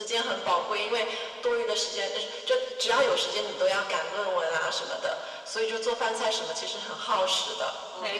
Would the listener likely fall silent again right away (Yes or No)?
No